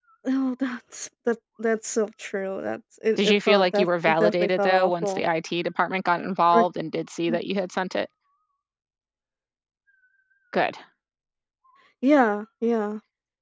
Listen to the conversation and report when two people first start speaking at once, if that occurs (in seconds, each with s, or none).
3.2 s